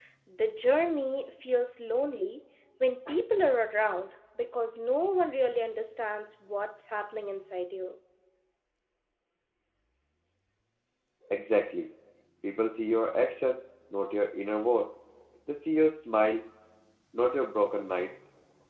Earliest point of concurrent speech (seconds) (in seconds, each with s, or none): none